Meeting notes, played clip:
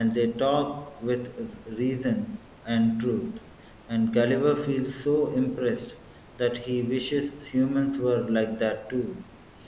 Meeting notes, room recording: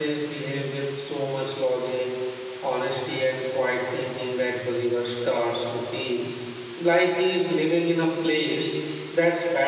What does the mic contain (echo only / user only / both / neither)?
user only